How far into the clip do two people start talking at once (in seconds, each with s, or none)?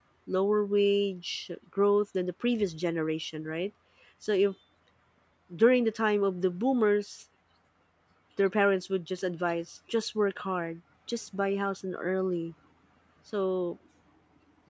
none